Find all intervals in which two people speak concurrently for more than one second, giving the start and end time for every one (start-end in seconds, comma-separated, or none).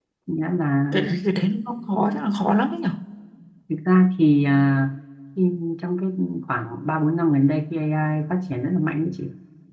none